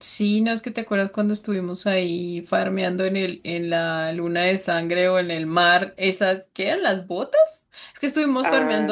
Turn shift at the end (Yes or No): No